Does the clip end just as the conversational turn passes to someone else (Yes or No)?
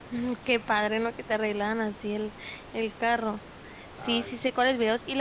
No